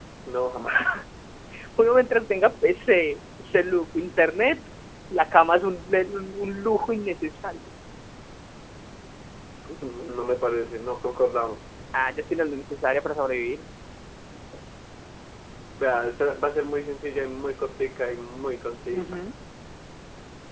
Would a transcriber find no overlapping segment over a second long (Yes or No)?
Yes